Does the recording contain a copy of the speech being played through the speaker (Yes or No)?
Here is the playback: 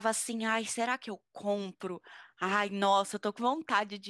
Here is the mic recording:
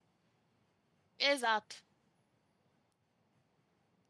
No